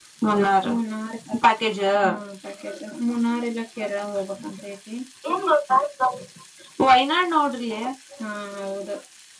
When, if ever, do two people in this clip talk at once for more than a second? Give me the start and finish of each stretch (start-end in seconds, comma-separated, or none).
none